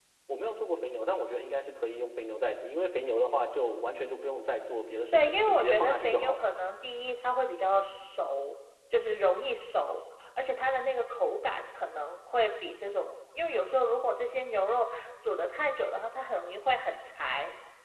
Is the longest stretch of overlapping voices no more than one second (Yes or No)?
No